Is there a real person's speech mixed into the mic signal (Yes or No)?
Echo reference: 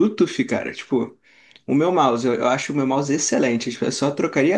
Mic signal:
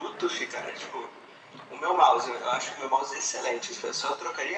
No